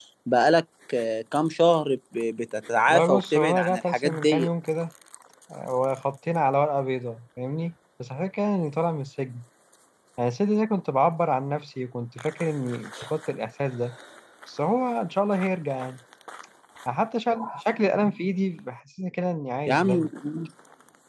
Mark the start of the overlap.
2.9 s

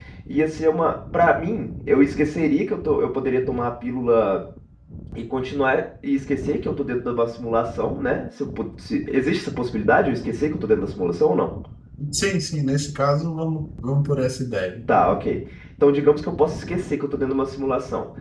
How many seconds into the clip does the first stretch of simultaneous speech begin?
none

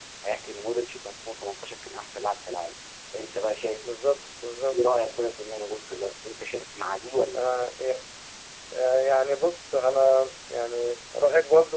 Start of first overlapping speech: none

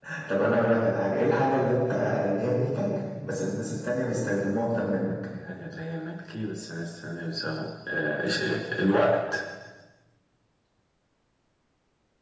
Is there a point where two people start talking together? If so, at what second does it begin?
none

